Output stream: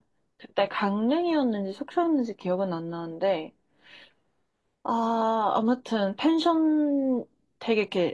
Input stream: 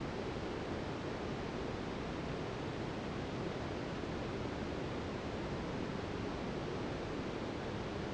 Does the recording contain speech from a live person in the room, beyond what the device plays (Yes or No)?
No